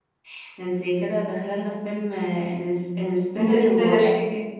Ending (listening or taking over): listening